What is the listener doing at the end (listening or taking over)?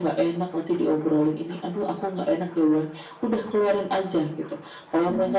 listening